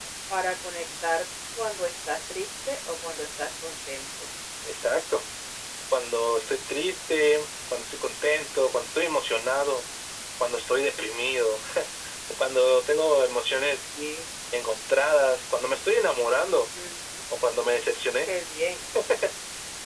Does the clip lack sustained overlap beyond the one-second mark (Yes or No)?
Yes